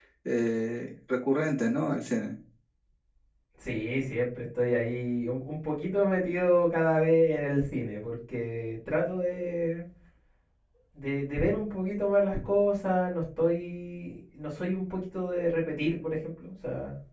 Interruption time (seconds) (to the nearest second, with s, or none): none